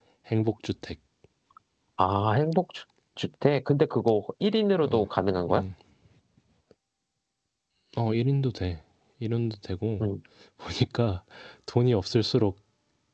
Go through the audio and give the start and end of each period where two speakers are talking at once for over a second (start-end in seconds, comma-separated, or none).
none